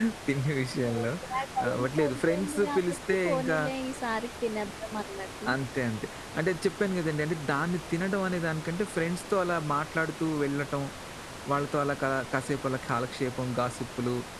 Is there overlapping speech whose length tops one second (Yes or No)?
Yes